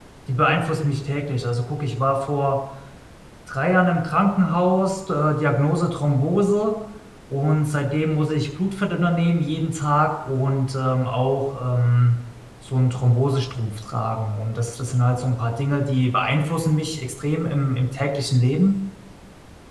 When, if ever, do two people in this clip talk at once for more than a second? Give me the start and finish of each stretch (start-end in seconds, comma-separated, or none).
none